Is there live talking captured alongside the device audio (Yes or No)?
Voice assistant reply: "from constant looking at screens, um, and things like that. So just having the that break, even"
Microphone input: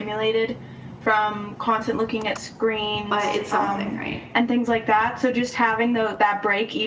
Yes